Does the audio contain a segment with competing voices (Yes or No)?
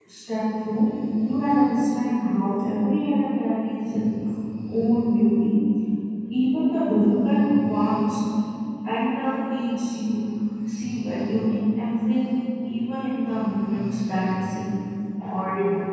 No